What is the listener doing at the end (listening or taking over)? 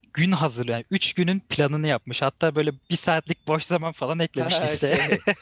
taking over